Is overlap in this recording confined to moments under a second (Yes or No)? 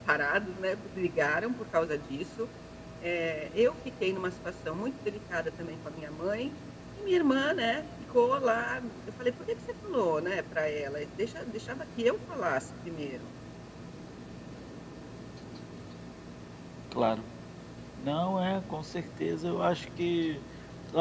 Yes